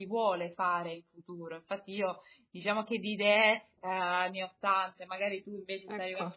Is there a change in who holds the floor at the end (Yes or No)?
No